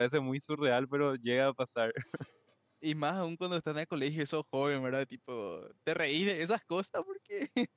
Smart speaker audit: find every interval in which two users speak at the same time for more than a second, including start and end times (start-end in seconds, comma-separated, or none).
none